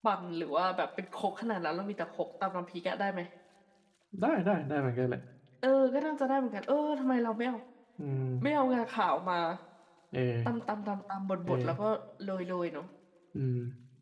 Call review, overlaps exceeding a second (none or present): none